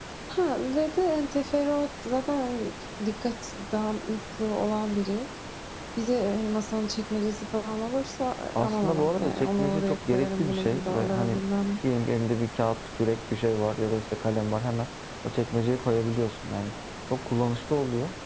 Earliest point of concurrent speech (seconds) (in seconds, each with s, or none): 8.6 s